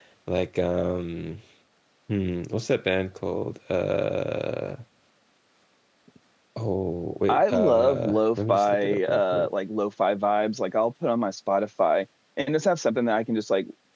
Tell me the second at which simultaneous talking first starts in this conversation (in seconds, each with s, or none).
7.3 s